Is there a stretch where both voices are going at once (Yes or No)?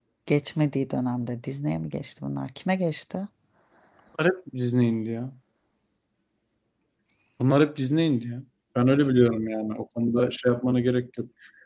No